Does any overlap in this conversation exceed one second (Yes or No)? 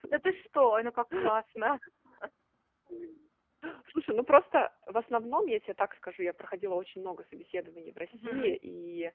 No